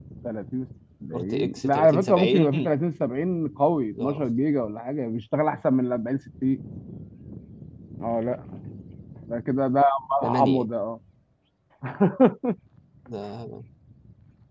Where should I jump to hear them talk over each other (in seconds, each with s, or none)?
1.1 s